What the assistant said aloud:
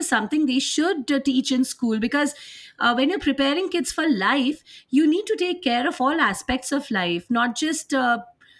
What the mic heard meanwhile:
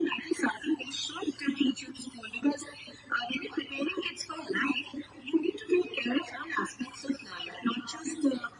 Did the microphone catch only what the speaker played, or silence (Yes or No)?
Yes